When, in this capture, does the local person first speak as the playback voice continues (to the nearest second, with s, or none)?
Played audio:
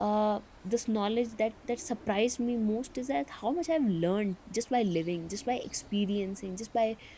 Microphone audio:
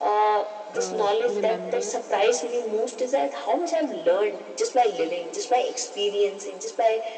1 s